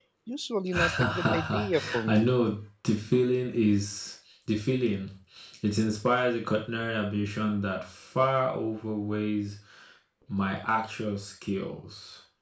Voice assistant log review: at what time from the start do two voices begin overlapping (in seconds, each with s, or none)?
0.8 s